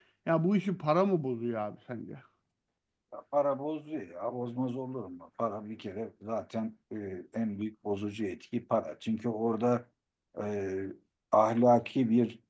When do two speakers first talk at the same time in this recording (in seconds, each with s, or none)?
none